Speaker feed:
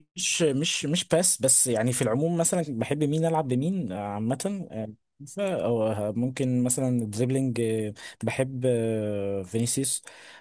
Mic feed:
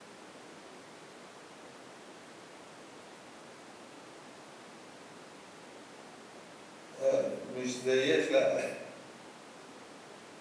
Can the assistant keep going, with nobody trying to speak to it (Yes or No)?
No